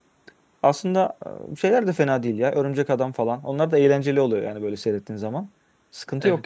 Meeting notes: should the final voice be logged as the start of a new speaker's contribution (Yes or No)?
Yes